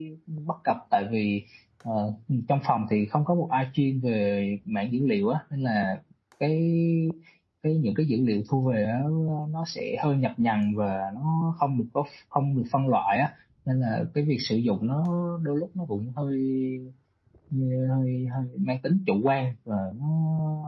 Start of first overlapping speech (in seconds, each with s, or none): none